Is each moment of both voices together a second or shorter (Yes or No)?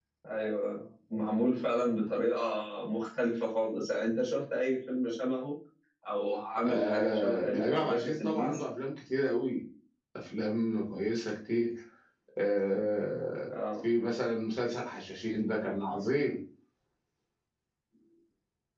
No